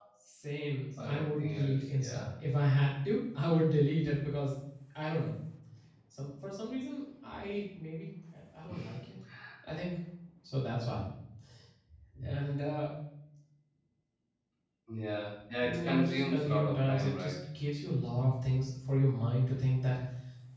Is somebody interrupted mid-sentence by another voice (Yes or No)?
Yes